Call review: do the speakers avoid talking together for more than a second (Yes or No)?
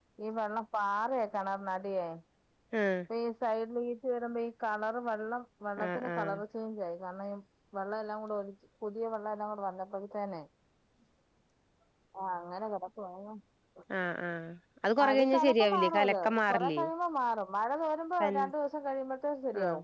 No